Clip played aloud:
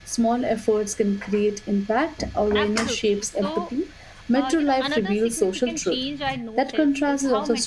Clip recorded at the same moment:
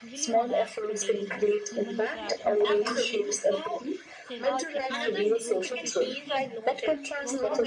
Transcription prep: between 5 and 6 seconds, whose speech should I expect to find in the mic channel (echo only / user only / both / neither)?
both